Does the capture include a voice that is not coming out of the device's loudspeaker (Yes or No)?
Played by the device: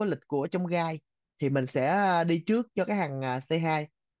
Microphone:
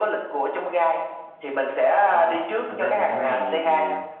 Yes